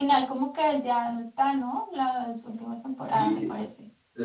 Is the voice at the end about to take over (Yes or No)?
Yes